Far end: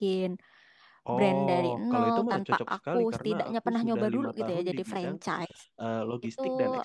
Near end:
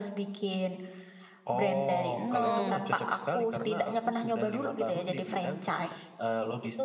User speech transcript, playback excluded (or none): mm-mm,